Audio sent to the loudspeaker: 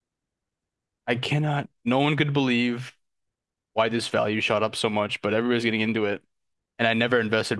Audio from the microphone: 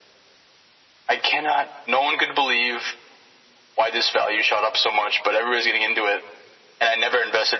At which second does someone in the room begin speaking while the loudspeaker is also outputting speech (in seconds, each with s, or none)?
none